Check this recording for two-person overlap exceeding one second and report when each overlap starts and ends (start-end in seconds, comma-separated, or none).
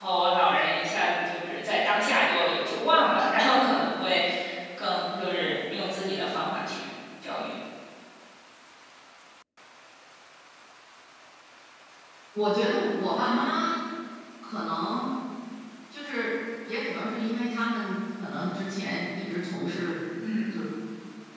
none